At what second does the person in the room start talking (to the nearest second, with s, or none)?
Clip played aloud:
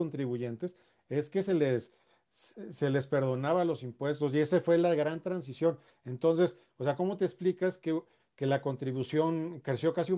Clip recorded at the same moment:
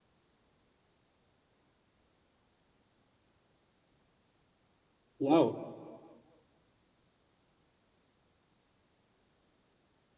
5 s